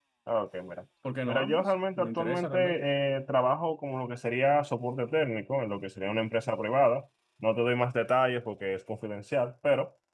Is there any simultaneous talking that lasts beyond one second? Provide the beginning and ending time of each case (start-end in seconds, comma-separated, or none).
1.2-2.6